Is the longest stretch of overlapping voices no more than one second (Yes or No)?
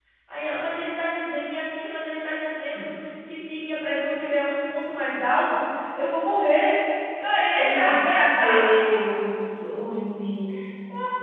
Yes